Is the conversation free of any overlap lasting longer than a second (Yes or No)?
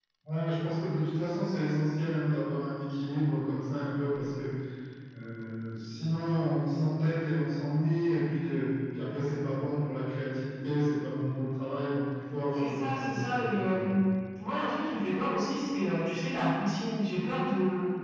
No